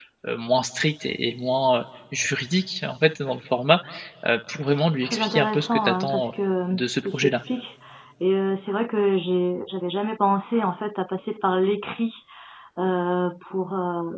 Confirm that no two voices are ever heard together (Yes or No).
No